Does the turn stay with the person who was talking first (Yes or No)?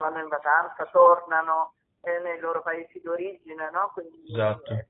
Yes